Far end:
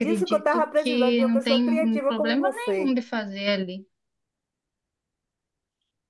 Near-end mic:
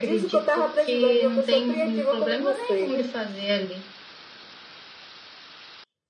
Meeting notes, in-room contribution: present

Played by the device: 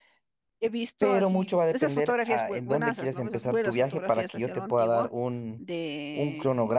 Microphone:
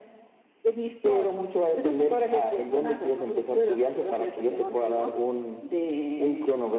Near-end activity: none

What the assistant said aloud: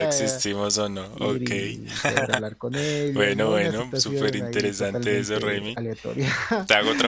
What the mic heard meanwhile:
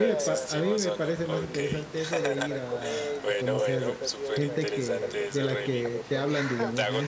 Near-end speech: present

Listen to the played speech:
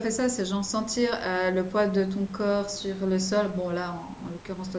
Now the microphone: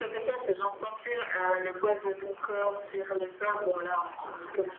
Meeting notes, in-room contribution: none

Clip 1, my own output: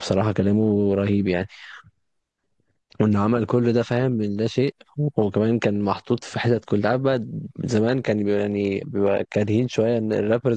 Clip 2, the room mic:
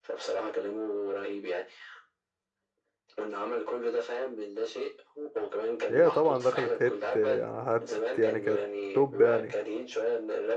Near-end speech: present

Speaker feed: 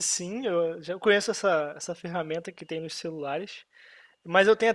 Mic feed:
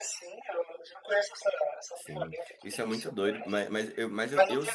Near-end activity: present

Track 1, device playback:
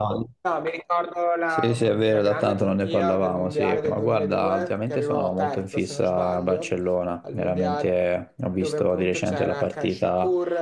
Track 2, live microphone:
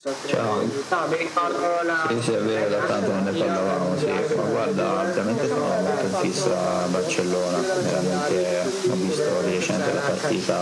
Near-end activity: present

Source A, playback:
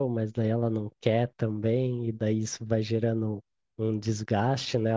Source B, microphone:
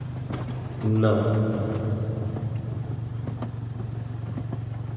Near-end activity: present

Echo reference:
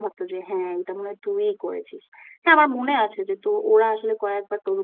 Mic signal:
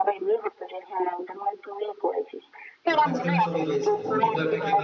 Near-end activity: present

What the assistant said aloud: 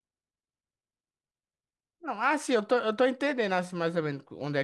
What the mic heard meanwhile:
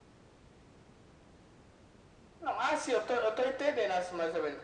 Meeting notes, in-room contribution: none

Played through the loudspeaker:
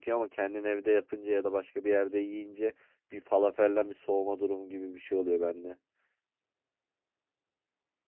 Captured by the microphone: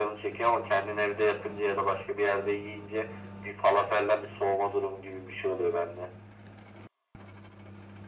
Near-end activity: none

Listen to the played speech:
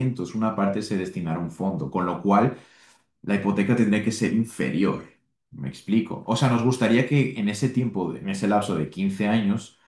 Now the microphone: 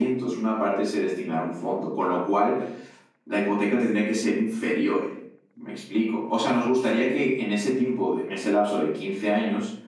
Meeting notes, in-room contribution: none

